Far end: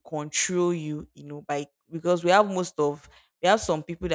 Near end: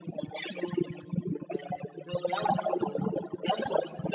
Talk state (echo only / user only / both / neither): echo only